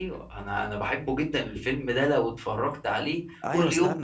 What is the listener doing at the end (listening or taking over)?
taking over